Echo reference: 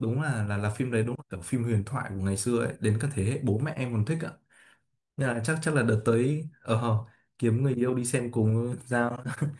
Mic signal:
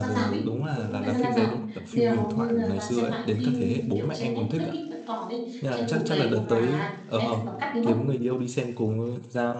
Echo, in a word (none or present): present